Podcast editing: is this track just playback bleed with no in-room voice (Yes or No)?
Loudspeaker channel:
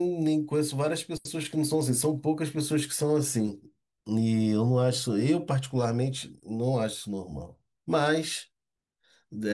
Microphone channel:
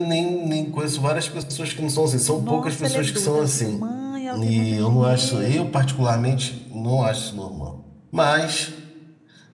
No